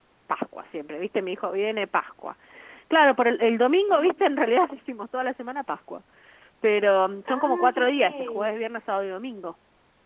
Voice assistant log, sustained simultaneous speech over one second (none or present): present